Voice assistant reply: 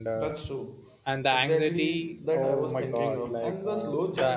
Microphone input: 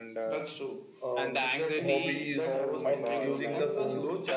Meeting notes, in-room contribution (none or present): present